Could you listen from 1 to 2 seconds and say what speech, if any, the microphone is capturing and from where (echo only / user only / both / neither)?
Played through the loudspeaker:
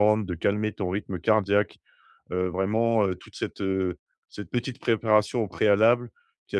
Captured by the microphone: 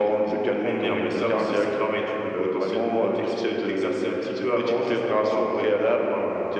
both